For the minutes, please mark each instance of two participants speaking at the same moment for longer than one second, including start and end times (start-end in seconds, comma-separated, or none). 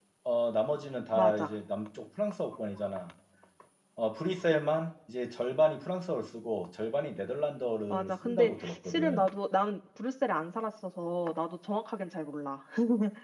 7.9-9.2